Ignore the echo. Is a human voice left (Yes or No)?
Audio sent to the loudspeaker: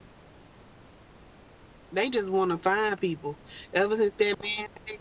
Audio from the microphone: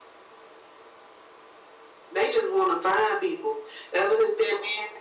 No